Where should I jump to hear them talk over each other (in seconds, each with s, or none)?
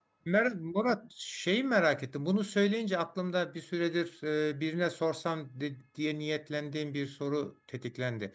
none